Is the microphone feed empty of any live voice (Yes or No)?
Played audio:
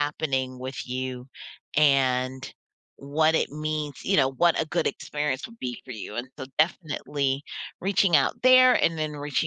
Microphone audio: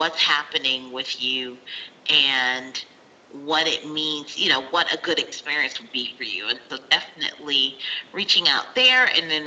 Yes